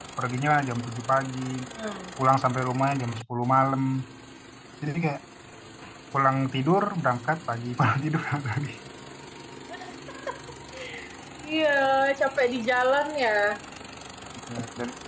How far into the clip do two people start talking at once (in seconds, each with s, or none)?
none